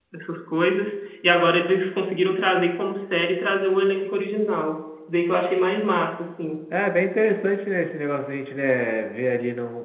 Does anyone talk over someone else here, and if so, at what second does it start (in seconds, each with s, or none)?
none